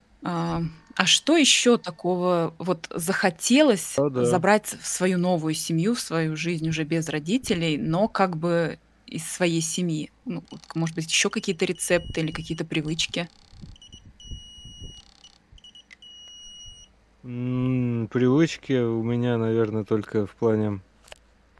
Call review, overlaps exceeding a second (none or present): none